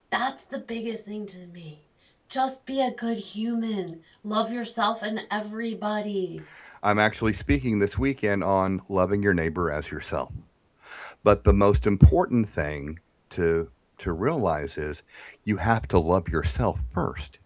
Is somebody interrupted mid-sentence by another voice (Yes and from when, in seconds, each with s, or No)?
No